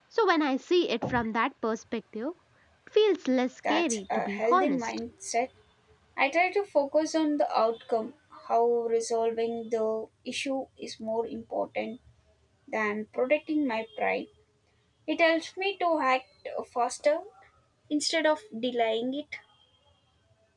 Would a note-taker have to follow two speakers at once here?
Yes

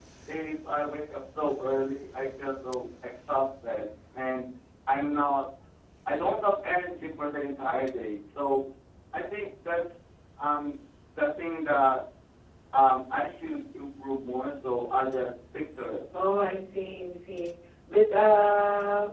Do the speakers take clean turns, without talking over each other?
Yes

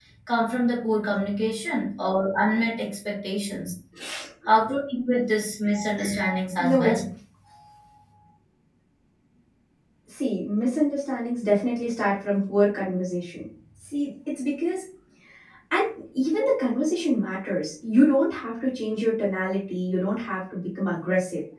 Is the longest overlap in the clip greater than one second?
No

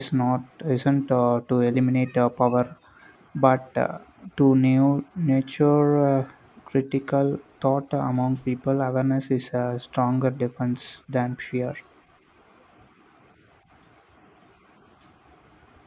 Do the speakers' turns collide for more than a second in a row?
No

